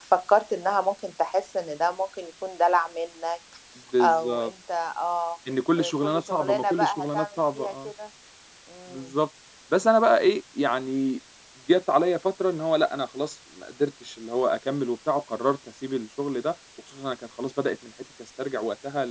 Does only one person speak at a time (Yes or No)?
No